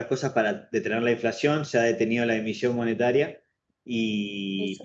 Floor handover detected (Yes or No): No